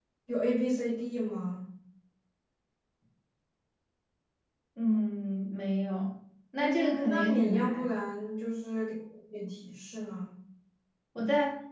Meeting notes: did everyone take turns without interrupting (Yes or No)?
No